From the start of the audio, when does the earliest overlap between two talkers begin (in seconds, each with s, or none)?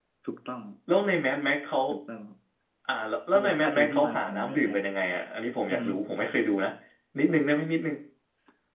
3.3 s